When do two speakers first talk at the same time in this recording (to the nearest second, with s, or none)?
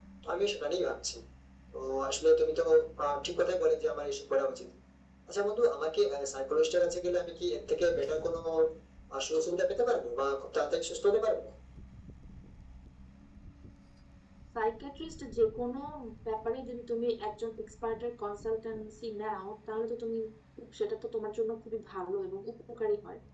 none